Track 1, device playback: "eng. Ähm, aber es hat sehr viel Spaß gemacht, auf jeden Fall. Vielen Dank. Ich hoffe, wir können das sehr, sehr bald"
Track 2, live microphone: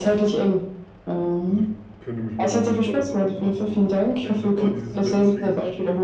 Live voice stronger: No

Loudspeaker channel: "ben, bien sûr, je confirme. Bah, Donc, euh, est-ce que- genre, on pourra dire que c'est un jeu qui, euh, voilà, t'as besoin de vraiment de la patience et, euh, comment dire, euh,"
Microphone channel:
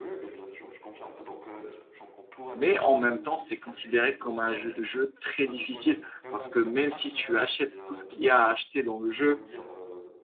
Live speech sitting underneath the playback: No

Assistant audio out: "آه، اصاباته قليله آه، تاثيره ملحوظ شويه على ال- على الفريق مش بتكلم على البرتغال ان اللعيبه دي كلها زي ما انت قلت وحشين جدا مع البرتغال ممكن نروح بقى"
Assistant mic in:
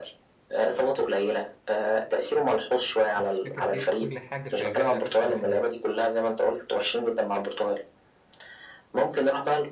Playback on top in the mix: Yes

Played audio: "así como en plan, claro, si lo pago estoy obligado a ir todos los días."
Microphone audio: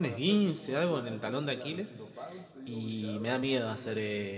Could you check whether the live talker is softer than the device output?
No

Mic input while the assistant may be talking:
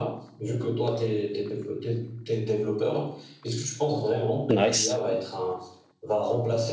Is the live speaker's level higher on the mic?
Yes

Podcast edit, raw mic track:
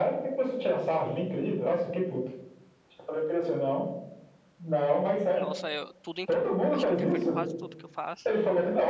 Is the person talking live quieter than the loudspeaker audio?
Yes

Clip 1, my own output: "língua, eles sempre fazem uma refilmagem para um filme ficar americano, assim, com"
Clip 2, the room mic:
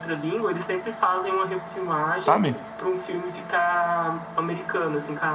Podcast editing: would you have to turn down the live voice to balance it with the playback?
Yes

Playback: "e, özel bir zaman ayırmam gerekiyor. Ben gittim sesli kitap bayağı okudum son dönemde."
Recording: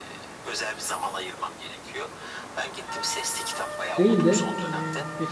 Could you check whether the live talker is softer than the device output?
No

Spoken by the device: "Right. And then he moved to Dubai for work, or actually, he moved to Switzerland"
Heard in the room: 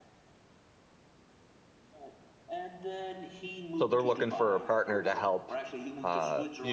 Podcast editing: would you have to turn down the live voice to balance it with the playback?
Yes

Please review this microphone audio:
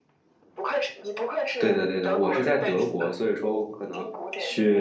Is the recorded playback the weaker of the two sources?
Yes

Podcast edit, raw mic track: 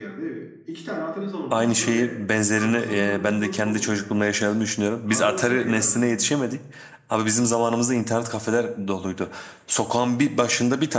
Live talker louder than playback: Yes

